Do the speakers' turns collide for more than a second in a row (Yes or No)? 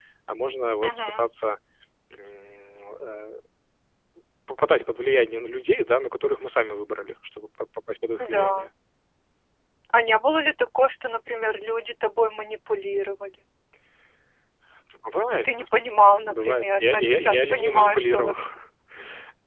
Yes